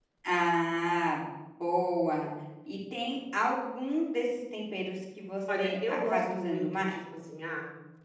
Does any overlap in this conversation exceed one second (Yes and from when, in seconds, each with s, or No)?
Yes, from 5.5 s